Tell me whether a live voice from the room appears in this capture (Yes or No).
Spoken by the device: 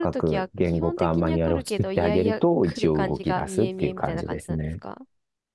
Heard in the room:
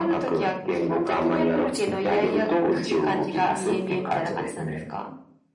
No